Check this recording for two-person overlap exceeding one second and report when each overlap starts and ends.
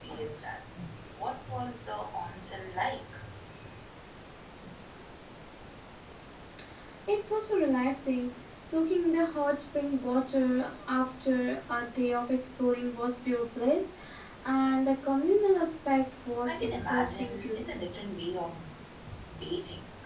16.4-17.7

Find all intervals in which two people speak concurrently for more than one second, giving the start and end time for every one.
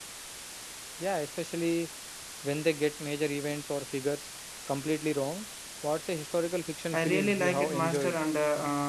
6.9-8.2

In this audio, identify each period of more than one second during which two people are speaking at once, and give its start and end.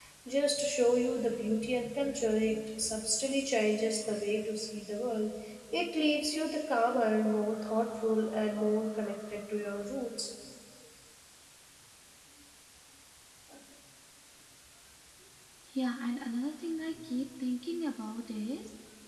none

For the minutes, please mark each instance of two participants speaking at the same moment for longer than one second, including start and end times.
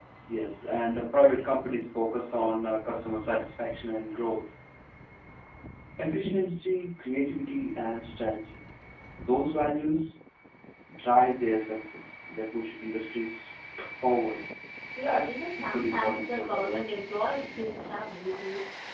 15.0-17.0

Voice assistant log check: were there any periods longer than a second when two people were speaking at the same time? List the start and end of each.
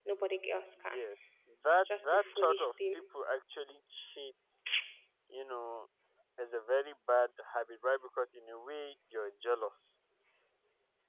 1.7-3.0

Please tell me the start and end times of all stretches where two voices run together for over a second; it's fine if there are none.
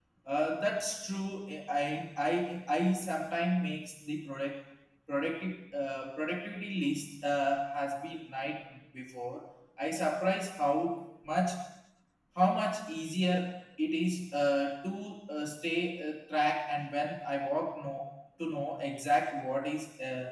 none

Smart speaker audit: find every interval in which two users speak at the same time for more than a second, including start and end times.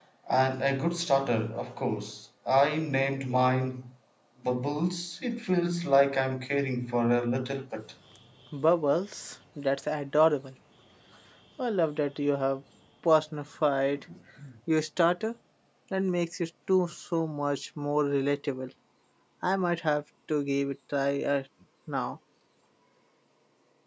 none

